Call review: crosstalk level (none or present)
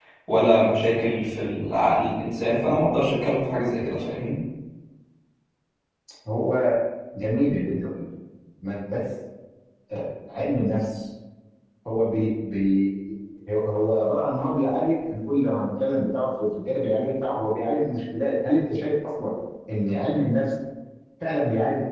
none